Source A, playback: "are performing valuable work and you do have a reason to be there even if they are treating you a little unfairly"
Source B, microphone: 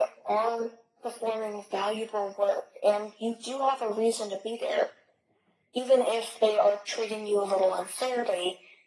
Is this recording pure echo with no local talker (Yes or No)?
Yes